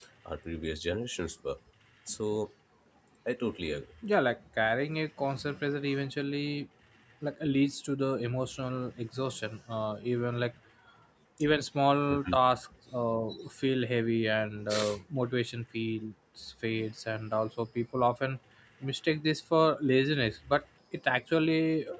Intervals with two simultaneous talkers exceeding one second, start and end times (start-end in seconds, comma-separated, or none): none